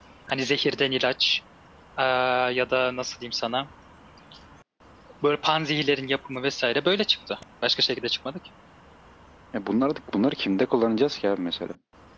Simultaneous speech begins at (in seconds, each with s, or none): none